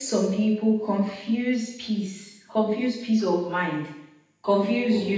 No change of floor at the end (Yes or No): Yes